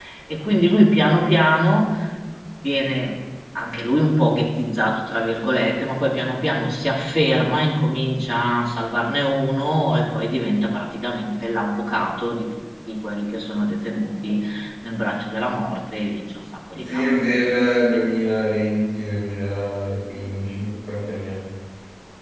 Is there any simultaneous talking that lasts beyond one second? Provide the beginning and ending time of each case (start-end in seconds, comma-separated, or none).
none